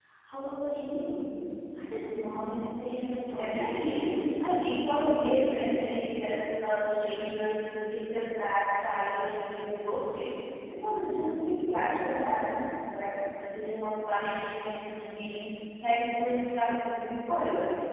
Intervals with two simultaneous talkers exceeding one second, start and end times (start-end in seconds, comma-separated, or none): 3.3-4.6